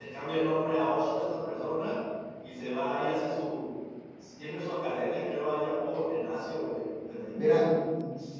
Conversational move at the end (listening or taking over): taking over